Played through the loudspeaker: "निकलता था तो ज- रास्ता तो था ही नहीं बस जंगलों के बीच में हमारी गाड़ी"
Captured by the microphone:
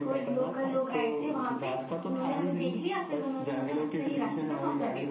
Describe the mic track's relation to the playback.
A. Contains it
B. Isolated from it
A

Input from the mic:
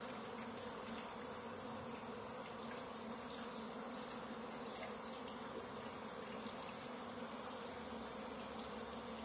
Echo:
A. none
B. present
A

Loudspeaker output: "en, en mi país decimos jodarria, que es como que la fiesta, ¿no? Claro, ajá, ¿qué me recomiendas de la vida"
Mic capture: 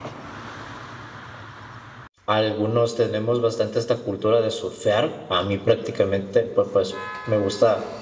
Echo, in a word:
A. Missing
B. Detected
A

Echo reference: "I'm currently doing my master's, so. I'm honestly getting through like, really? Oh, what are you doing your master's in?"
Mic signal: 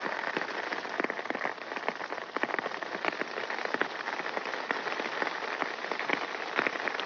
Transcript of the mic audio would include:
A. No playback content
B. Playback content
A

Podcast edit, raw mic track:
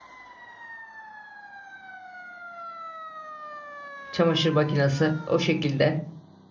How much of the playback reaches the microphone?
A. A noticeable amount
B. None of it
B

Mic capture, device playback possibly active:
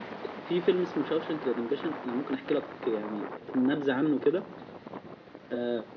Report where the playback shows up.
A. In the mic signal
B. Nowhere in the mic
A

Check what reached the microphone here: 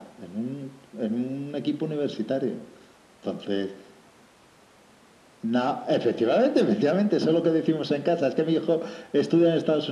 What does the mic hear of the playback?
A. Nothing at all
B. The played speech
B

